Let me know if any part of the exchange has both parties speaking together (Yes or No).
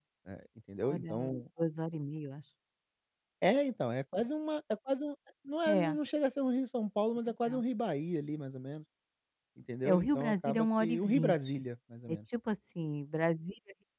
Yes